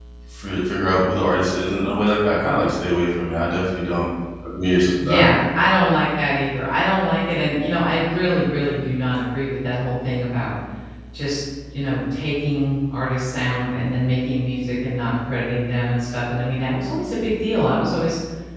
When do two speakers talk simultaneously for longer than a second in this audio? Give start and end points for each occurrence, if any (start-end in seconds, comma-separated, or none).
none